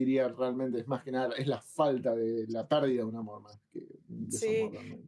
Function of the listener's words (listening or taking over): taking over